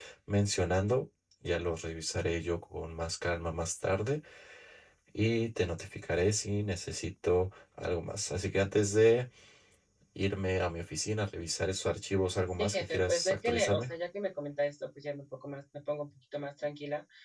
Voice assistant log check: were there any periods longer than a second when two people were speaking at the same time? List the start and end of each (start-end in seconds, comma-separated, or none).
12.6-13.9